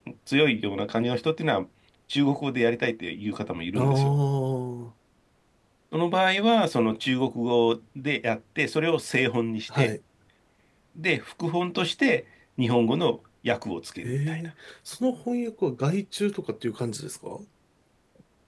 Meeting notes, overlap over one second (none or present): none